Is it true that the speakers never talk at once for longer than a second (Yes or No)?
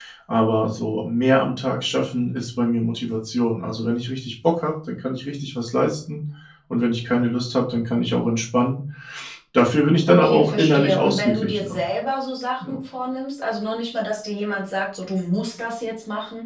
No